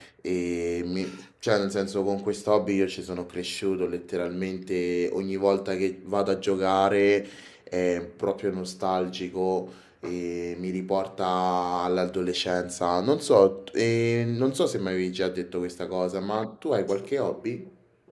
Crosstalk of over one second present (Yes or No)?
No